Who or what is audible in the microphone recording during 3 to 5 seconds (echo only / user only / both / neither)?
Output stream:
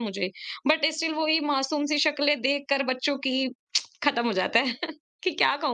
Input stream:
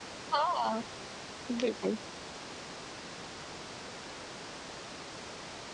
neither